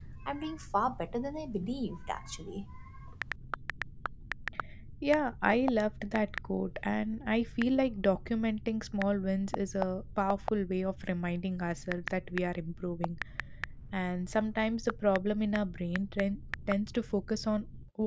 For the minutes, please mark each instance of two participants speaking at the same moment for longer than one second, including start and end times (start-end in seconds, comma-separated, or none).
none